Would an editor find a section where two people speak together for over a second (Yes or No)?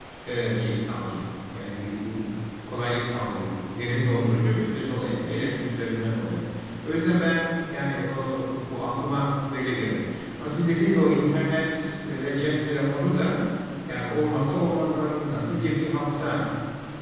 No